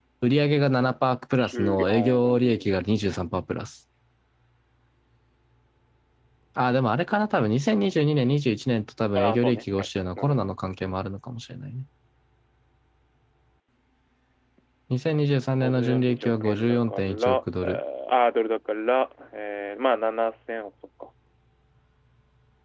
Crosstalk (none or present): present